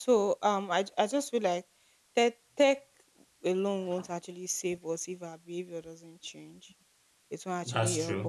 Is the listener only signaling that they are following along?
Yes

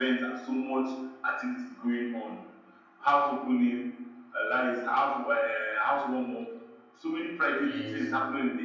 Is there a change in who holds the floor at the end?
No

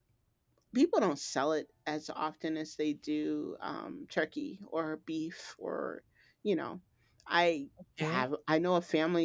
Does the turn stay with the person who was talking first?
Yes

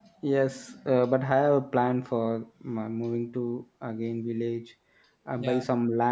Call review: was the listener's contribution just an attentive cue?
Yes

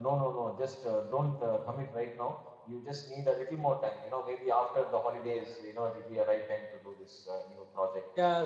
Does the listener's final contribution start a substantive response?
Yes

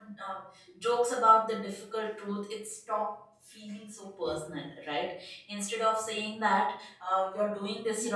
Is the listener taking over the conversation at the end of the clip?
No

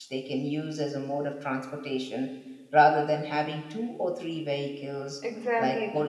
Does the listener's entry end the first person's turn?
No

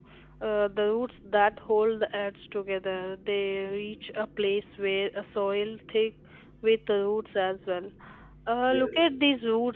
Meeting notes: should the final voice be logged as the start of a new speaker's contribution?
No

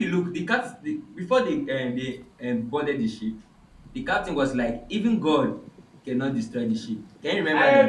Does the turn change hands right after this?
Yes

